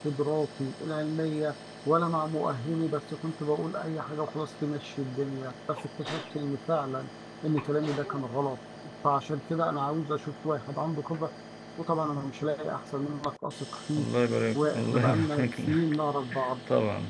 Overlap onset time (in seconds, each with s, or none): 14.5 s